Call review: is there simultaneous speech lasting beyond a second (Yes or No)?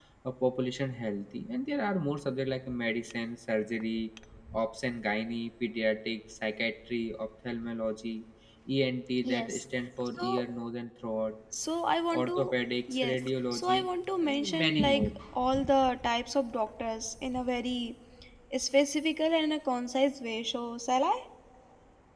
Yes